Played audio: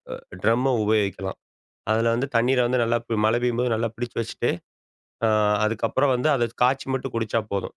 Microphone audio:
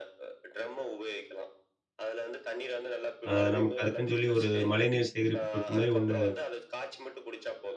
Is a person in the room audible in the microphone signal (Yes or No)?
Yes